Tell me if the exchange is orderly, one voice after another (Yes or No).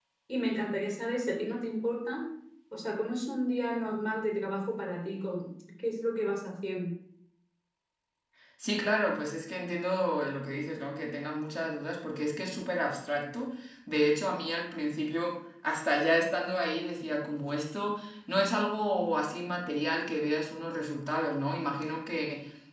Yes